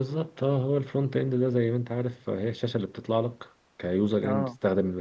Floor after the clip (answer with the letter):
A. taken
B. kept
B